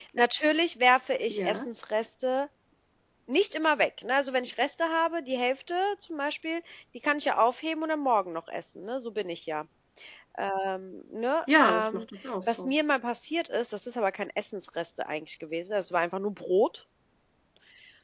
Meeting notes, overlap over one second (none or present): none